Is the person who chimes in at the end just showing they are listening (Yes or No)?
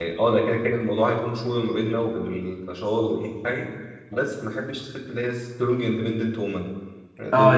No